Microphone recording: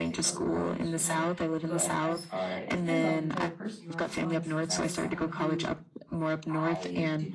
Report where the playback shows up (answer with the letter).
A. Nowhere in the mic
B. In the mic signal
B